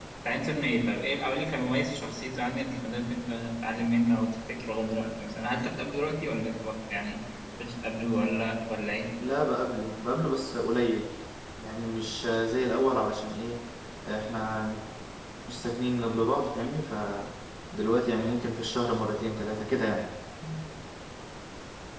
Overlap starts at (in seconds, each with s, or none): none